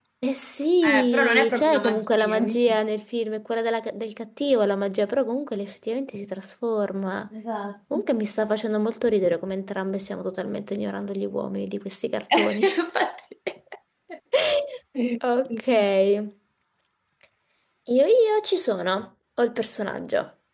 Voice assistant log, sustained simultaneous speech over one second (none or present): present